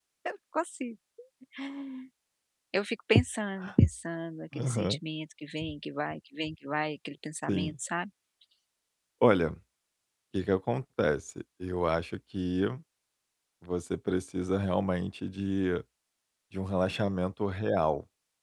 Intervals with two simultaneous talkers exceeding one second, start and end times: none

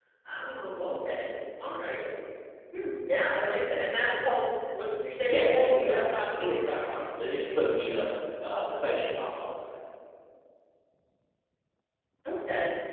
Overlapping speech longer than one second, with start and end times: 5.3-6.6

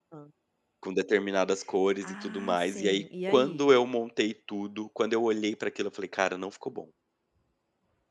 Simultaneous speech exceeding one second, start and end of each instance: 2.0-3.7

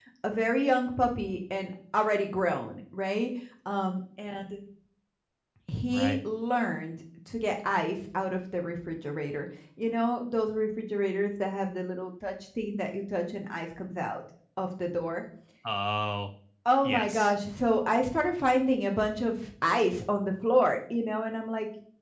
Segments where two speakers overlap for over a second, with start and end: none

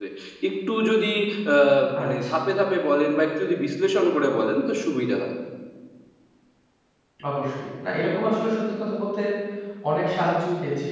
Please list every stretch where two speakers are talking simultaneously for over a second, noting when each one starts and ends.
none

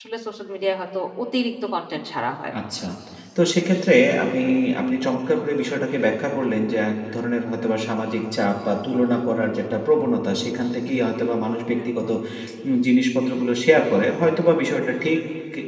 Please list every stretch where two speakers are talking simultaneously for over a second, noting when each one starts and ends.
none

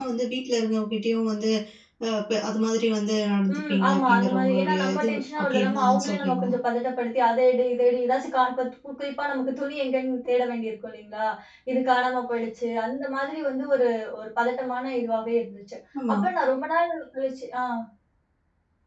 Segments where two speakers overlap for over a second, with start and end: 3.5-6.5

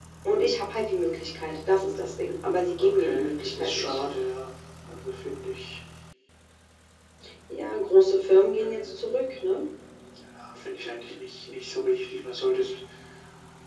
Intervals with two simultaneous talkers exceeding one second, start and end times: 2.8-4.0

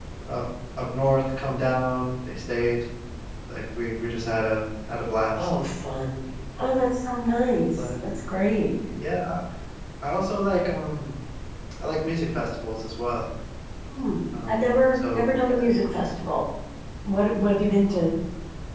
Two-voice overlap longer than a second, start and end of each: 14.5-15.7

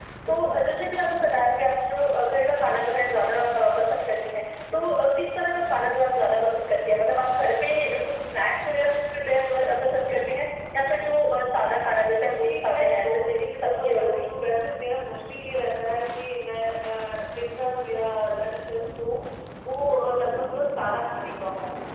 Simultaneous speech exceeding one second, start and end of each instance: 12.3-14.3

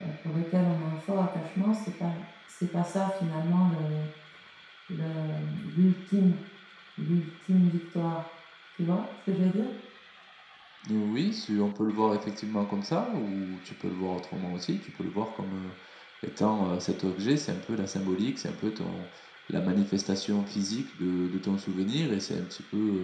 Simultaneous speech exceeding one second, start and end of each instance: none

